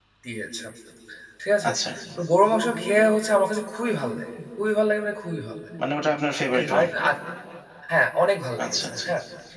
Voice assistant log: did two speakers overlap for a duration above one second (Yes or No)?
No